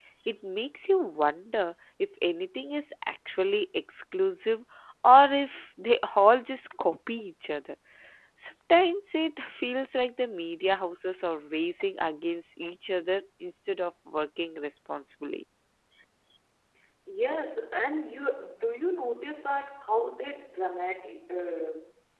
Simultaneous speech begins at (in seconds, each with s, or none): none